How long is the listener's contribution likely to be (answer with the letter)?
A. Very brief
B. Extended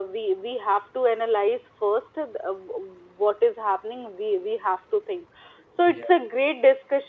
A